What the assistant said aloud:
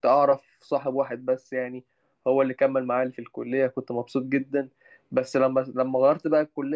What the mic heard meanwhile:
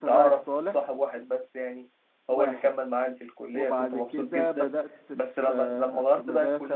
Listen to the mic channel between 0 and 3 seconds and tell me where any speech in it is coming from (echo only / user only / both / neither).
both